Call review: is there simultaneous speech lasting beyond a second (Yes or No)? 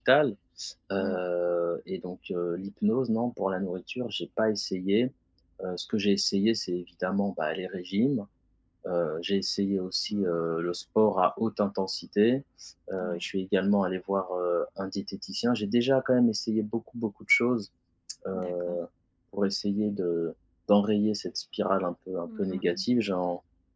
No